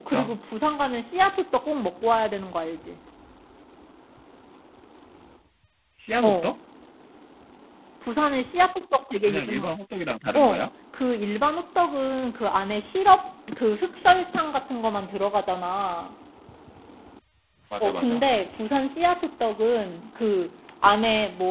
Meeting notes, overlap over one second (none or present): none